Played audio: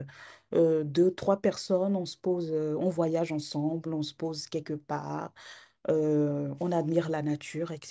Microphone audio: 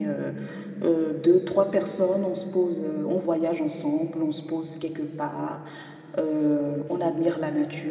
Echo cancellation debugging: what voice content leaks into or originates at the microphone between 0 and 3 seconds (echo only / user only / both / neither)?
echo only